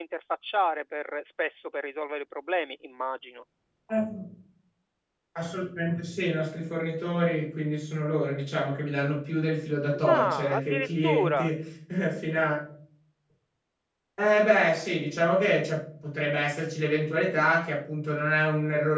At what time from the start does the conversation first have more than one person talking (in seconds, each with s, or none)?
9.9 s